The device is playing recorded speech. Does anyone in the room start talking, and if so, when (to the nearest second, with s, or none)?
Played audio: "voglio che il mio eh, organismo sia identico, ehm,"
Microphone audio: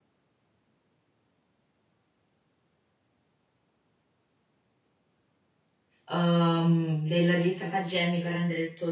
6 s